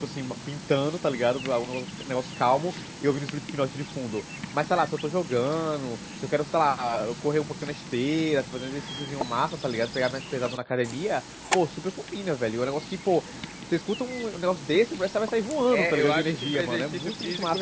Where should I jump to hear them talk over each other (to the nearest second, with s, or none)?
16 s